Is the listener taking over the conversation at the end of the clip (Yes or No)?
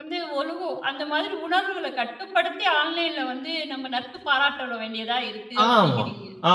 Yes